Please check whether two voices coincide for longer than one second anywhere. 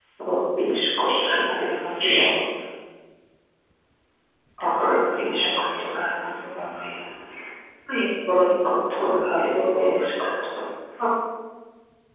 Yes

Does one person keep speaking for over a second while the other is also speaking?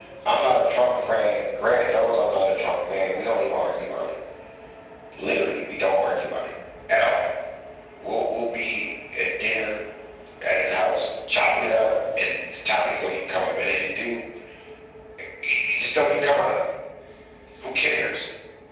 No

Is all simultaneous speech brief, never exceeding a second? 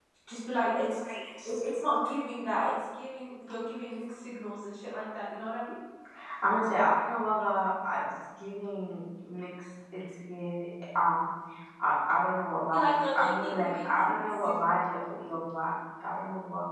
No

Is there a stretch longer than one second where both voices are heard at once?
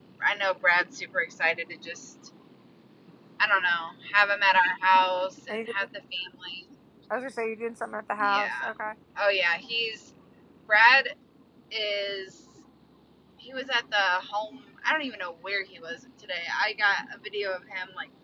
No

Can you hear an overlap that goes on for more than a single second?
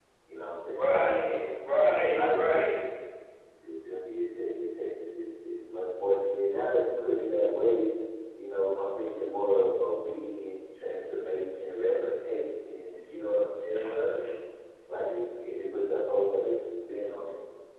Yes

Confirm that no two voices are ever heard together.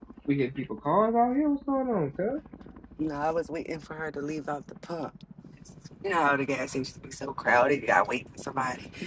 Yes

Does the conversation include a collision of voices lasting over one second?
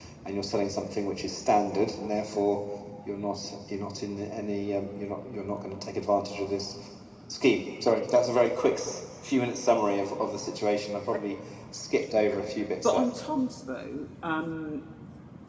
No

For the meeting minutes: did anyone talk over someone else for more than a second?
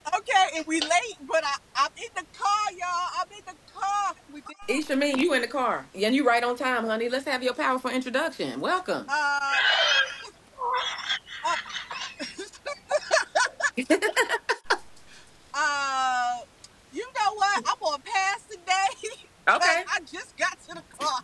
No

